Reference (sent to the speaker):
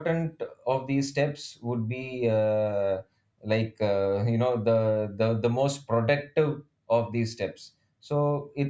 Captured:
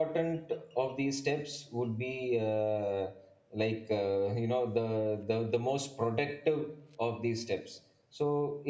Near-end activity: none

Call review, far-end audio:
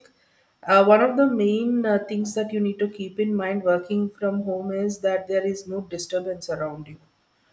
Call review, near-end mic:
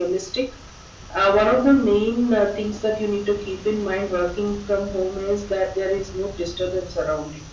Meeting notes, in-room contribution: none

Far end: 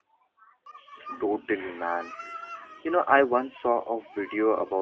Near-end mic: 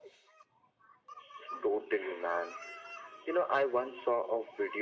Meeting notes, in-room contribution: none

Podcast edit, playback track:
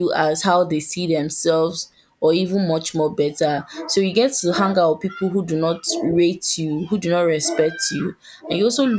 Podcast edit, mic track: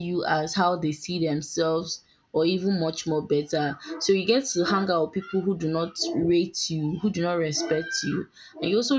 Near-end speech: none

